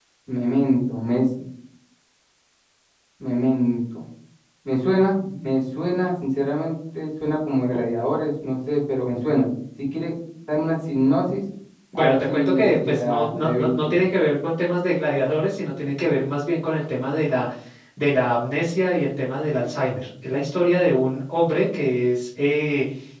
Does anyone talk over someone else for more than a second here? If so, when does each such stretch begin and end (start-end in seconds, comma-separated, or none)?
11.9-13.9